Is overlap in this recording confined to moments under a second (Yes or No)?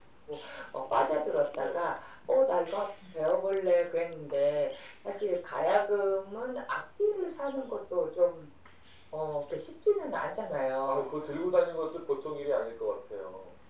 Yes